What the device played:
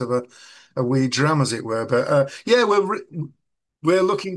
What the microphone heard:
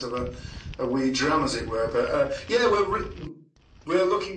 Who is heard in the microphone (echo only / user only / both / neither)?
echo only